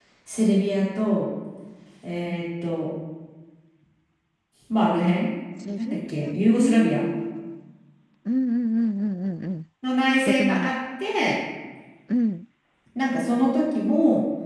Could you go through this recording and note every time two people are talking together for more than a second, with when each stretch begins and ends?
5.8-7.1

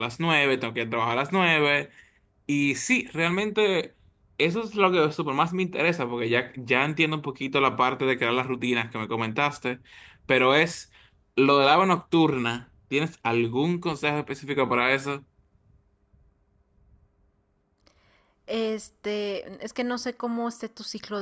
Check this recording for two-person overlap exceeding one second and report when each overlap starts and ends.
none

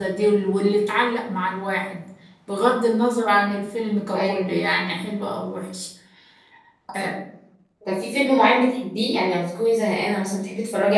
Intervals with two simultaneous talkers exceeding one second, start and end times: none

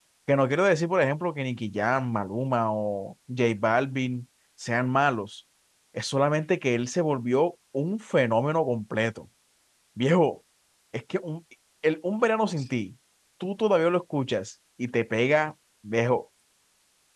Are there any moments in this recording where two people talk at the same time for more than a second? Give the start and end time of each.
none

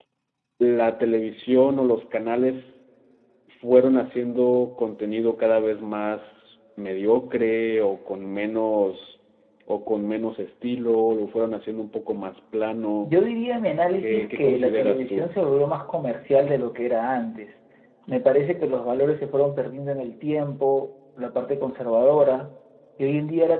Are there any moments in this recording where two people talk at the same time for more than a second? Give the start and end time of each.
14.0-15.3

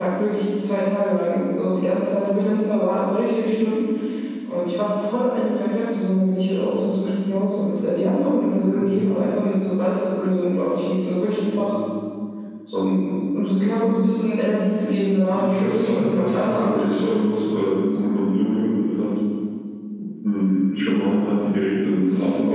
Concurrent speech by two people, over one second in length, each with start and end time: 15.3-17.0

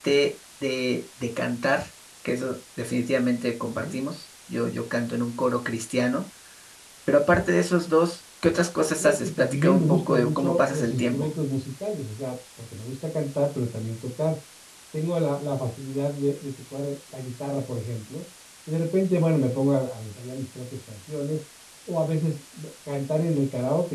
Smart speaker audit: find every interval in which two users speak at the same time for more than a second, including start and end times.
9.0-11.3

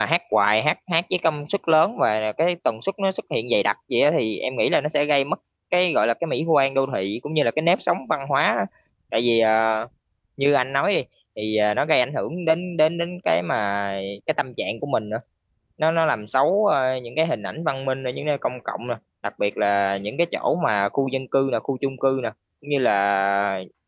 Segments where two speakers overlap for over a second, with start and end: none

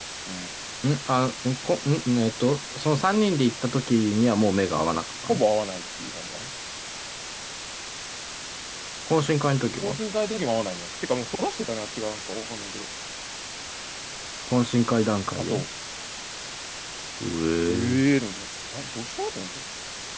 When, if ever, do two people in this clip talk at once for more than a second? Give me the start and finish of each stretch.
none

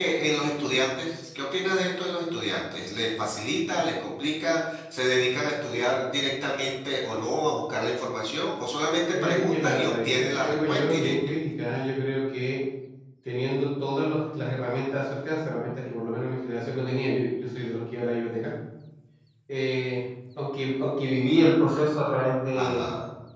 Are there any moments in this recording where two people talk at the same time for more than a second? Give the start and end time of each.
9.1-11.2

